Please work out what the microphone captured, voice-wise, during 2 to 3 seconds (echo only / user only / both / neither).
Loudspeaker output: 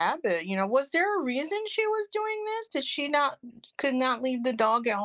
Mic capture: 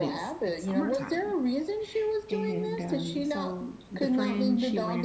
both